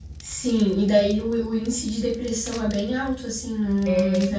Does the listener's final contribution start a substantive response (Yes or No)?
No